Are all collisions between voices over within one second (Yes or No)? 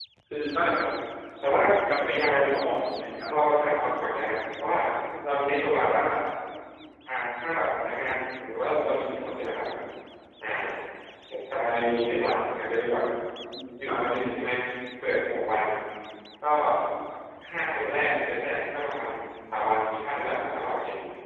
Yes